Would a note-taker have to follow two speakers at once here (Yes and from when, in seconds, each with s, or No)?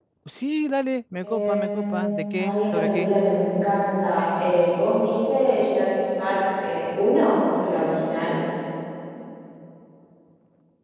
Yes, from 1.2 s